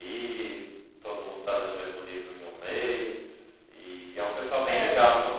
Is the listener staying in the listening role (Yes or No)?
Yes